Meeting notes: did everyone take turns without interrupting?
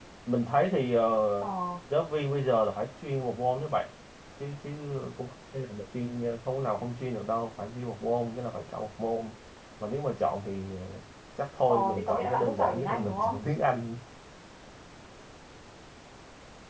No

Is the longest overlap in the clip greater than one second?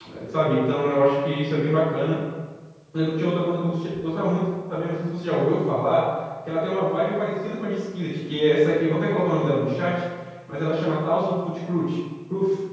No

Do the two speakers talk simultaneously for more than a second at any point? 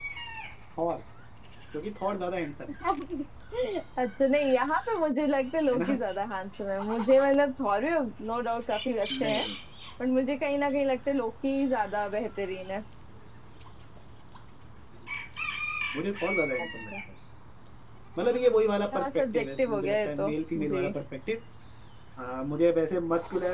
Yes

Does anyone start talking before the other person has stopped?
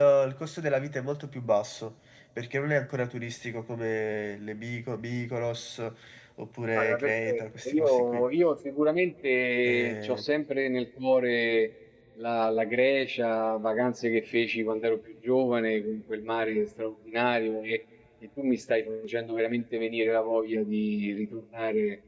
Yes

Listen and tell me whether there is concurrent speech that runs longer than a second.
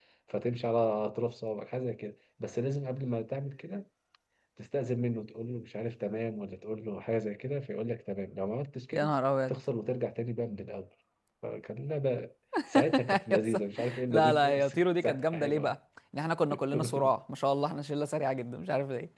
Yes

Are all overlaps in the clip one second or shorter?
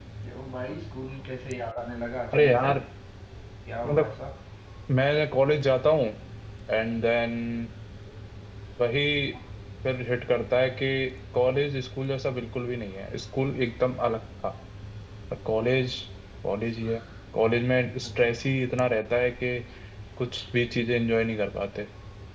Yes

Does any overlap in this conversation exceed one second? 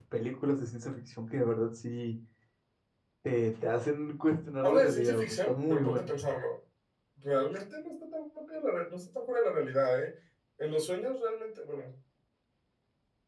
Yes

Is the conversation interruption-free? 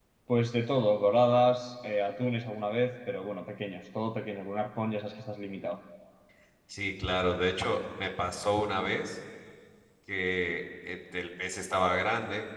Yes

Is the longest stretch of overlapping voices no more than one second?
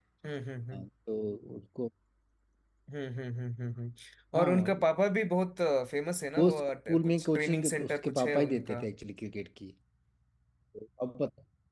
No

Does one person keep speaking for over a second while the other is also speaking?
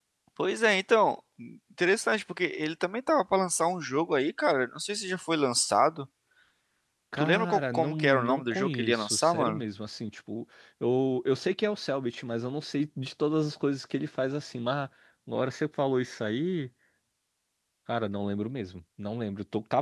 Yes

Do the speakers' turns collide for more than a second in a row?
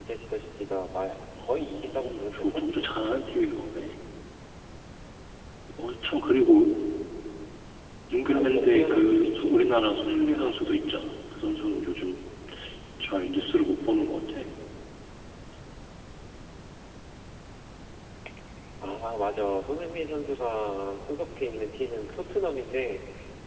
Yes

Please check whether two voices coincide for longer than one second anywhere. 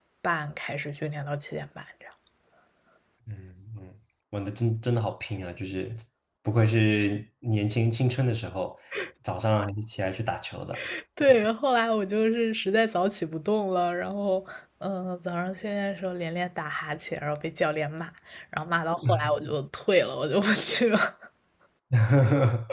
No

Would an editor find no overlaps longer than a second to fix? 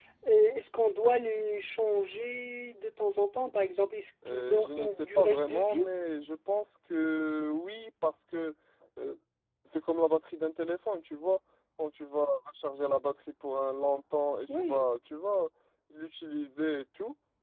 No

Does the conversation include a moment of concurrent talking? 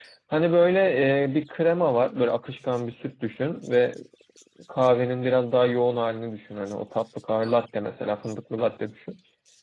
No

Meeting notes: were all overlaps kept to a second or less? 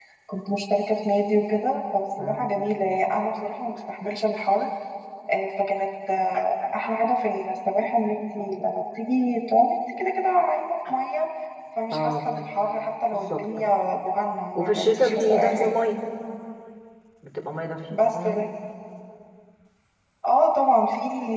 No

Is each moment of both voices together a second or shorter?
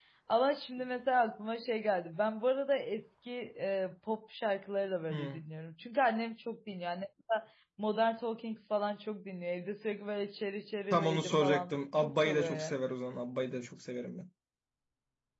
No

